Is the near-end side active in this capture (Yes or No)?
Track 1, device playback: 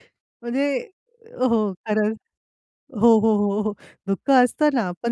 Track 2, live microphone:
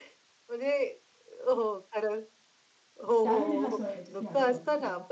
Yes